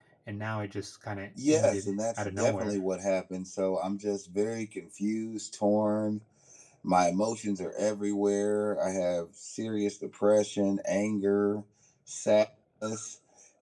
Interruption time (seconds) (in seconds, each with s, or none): 1.4 s